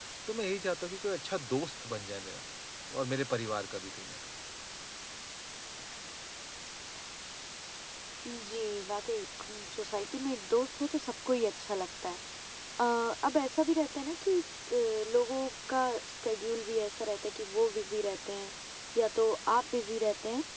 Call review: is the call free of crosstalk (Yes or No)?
Yes